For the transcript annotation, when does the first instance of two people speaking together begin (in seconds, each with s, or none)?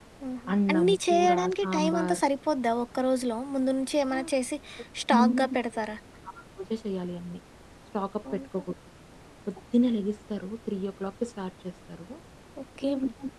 0.5 s